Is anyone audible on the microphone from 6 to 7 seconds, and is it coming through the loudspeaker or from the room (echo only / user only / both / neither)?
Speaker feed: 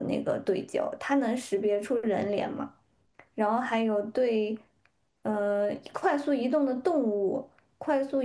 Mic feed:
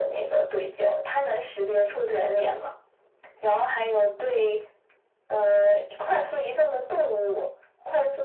echo only